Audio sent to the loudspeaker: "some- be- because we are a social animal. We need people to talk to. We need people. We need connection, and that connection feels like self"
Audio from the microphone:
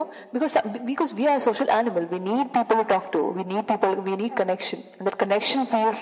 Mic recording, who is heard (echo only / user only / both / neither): echo only